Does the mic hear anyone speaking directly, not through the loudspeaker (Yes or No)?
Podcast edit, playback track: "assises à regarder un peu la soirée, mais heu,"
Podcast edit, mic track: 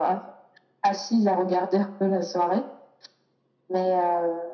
No